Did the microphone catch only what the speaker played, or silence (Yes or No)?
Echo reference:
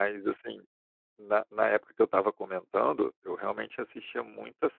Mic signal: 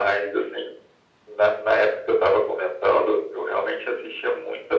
Yes